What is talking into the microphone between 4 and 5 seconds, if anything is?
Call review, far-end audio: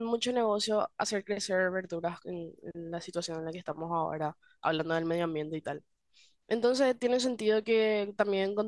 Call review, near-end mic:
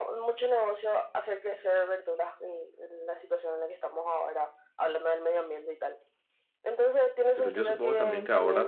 echo only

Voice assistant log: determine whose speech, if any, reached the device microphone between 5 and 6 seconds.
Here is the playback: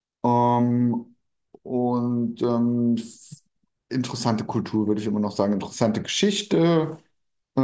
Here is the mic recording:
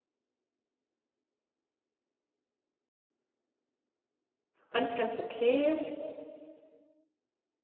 user only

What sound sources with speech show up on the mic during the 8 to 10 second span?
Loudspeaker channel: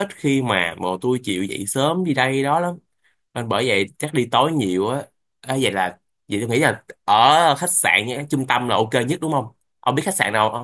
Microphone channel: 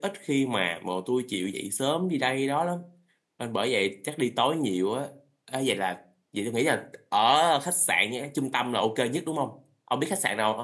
echo only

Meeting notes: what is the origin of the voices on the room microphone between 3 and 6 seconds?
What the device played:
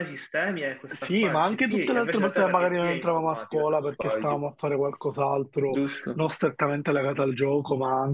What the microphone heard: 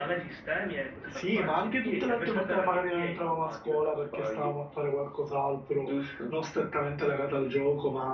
echo only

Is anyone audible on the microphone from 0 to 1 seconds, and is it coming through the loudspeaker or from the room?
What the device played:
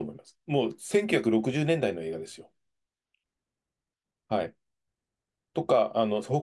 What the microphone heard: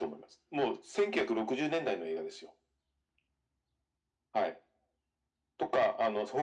echo only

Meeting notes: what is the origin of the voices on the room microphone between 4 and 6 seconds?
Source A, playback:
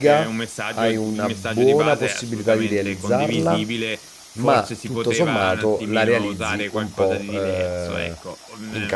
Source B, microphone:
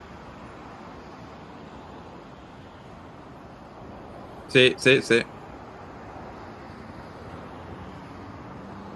user only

